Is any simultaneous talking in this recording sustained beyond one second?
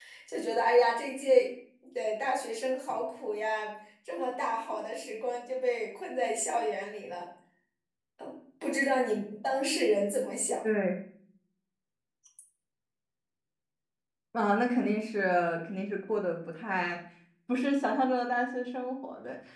No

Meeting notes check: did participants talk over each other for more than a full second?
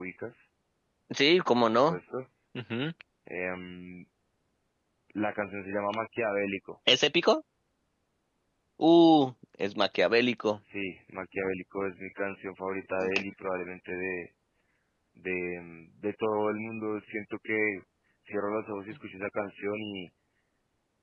No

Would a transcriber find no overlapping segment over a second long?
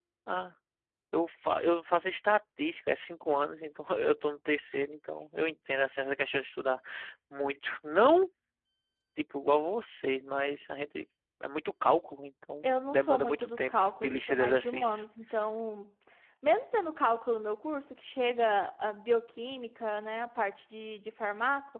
No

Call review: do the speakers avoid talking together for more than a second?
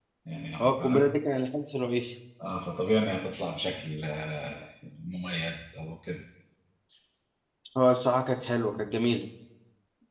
Yes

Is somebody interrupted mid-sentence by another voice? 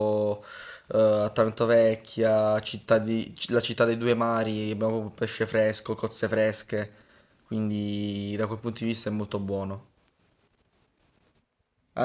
No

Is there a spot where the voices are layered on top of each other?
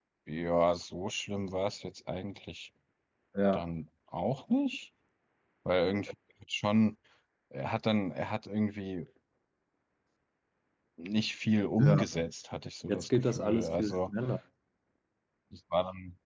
Yes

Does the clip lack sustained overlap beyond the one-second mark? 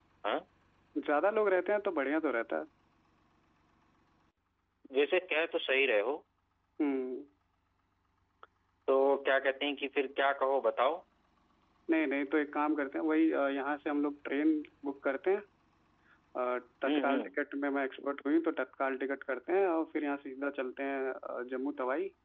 Yes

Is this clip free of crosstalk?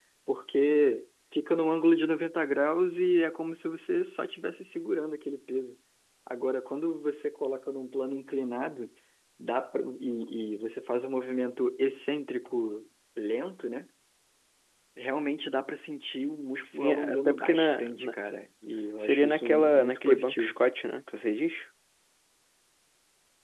No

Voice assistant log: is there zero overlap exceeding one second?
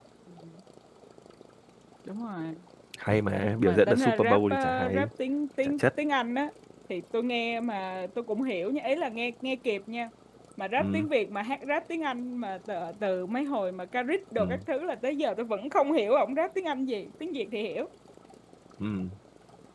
No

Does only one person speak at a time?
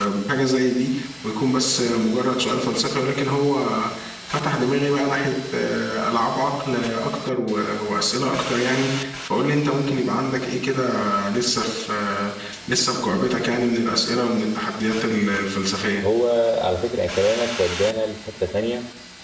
Yes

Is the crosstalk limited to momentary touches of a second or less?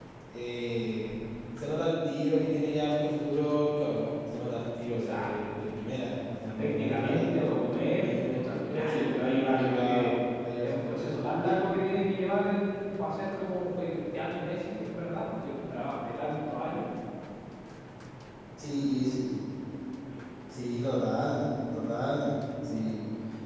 No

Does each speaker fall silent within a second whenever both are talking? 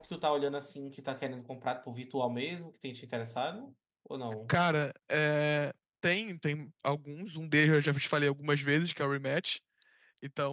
Yes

